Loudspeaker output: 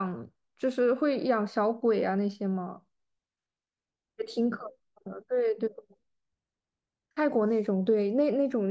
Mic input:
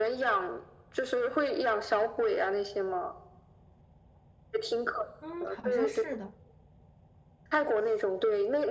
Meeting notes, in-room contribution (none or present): present